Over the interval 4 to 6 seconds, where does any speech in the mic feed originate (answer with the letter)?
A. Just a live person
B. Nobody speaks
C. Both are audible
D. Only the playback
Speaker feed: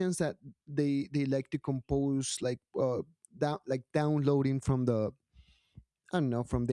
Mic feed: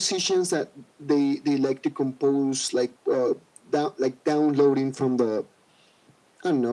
D